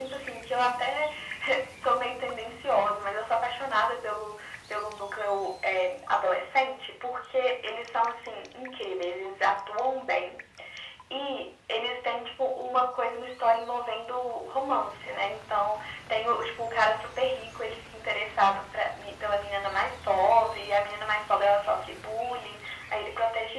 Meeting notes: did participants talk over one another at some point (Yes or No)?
No